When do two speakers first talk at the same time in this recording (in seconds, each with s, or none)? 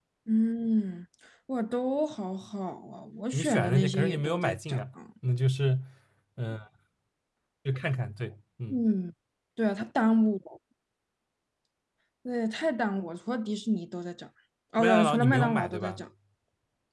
3.3 s